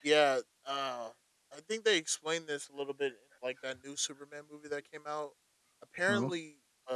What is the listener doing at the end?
listening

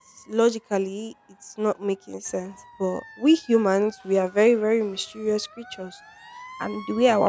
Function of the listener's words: listening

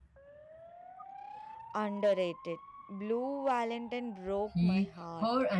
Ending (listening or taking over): taking over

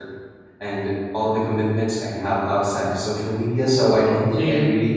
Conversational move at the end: listening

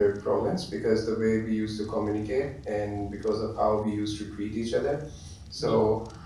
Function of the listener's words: listening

